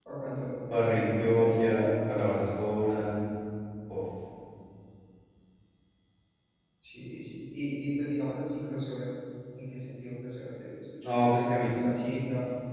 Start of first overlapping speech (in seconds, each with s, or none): 0.6 s